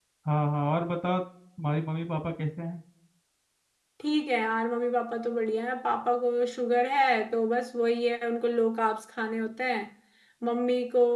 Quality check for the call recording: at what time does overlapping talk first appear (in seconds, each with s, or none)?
none